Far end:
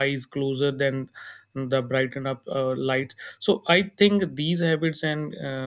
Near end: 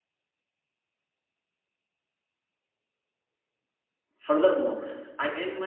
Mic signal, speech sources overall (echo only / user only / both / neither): user only